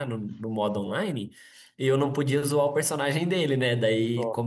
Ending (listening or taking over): listening